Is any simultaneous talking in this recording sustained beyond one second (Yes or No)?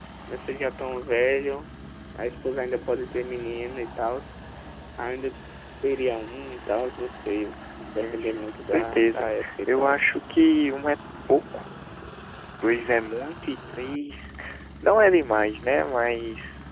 Yes